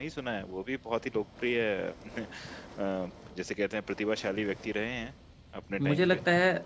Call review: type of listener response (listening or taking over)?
taking over